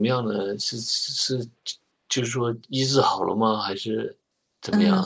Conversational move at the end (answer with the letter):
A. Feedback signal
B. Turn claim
B